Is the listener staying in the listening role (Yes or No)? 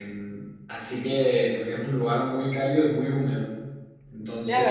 No